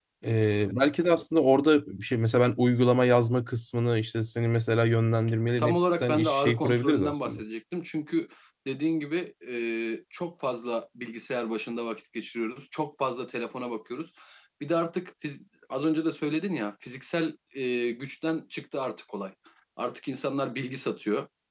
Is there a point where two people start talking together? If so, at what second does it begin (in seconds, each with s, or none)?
5.6 s